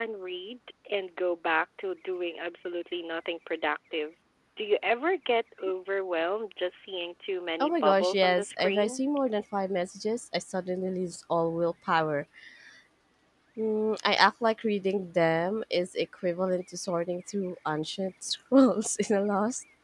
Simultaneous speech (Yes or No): Yes